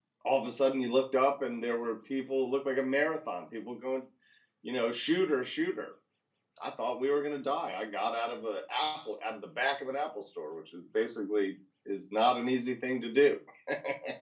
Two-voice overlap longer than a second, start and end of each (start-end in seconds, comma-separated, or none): none